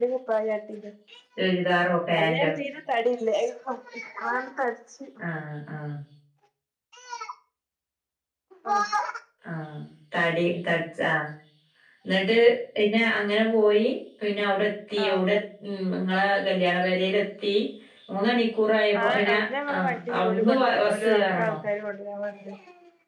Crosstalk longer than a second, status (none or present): present